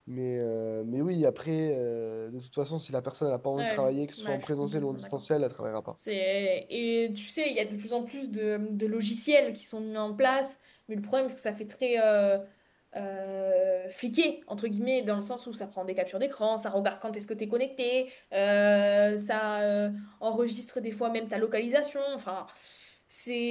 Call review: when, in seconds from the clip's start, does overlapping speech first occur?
3.6 s

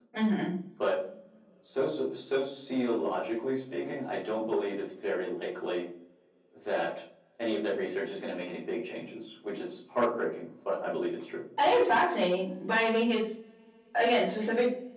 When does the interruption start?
none

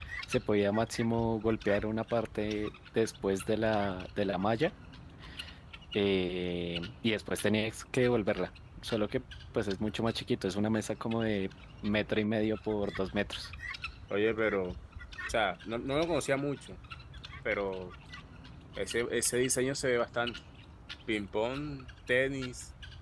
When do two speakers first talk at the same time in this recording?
none

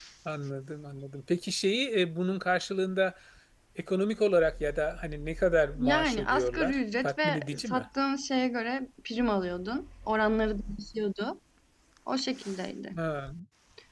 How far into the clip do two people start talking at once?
5.8 s

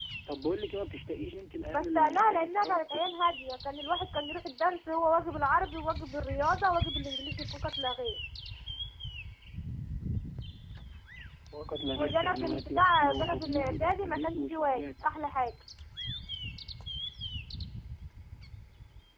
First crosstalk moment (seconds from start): 1.7 s

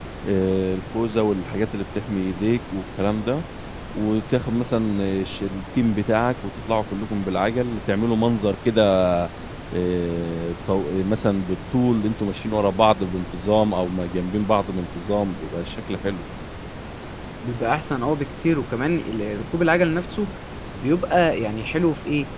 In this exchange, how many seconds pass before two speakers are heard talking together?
none

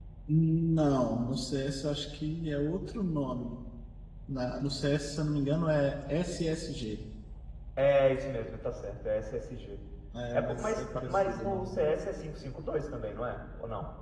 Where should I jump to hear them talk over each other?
10.3 s

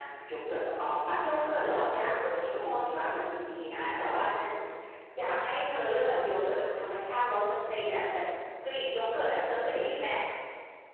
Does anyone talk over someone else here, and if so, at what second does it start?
1.2 s

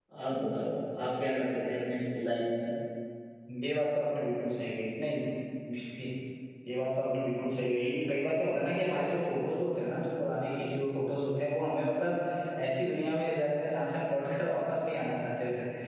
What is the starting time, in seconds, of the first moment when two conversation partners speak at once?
none

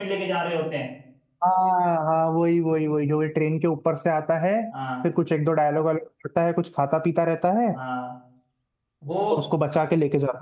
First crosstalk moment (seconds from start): none

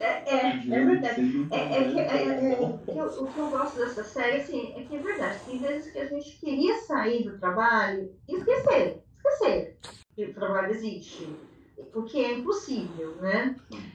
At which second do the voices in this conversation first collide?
0.5 s

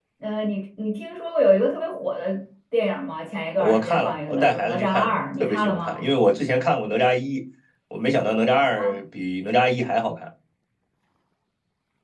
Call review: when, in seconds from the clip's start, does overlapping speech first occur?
3.6 s

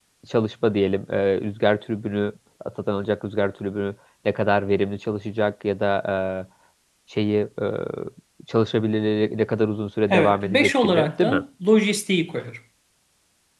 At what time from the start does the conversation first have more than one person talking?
10.1 s

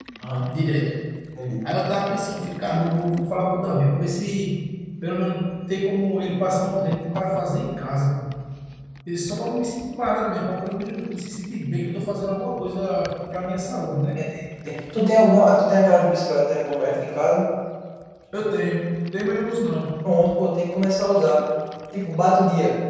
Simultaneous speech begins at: none

